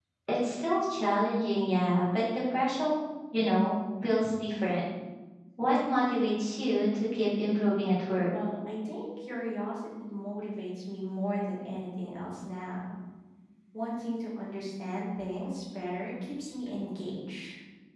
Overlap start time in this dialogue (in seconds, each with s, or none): none